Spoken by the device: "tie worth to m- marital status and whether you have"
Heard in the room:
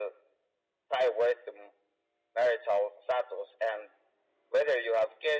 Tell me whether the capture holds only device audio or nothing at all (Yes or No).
Yes